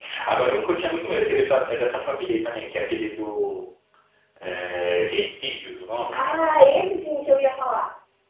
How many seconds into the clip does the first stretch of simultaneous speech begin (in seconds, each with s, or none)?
none